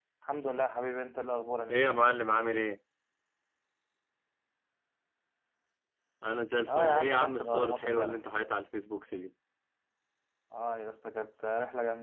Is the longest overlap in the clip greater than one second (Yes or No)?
Yes